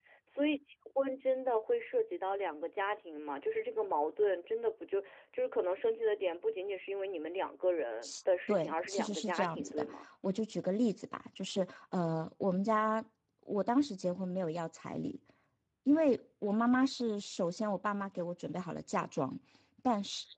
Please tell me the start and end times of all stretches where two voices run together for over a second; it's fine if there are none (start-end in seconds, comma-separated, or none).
8.5-9.9